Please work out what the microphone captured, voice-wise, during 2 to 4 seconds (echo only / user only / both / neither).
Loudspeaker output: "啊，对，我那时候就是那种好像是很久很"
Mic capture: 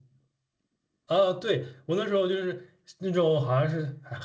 echo only